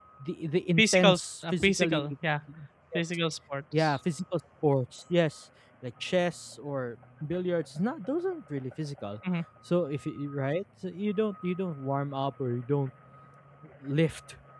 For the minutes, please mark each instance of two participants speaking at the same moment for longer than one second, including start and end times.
0.8-2.0

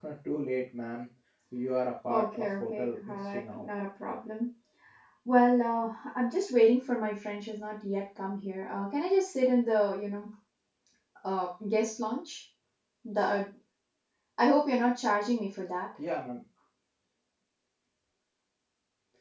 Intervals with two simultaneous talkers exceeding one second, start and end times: 2.1-3.7

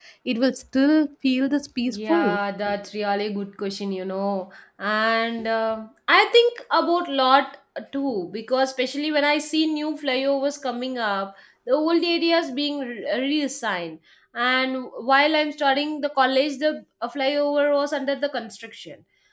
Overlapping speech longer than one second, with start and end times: none

